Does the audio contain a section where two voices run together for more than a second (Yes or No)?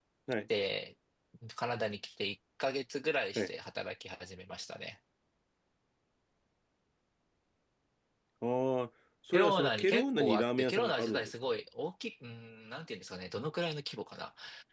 Yes